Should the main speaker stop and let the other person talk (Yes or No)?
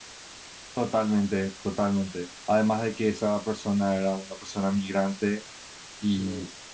No